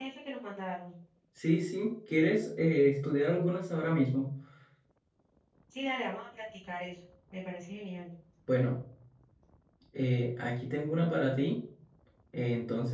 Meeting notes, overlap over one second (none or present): none